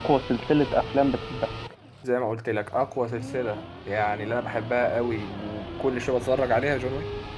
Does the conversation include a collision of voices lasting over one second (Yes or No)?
No